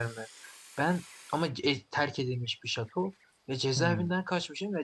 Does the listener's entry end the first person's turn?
No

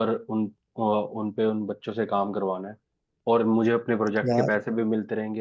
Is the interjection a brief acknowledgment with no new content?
Yes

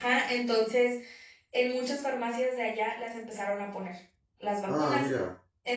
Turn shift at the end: No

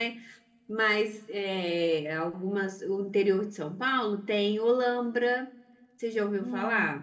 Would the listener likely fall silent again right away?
No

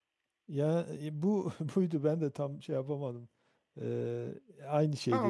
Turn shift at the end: Yes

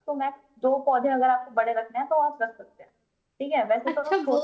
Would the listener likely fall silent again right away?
No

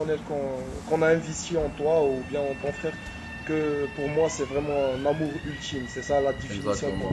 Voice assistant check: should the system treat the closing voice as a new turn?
Yes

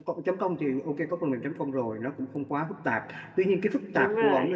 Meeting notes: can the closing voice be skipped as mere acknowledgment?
Yes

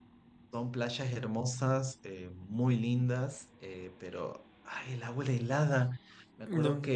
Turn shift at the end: No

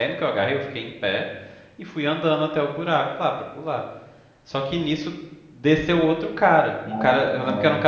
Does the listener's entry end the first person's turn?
No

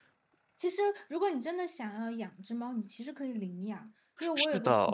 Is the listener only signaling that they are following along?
Yes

